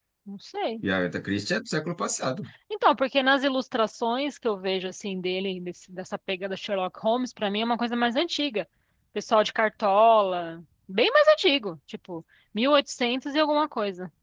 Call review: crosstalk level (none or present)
none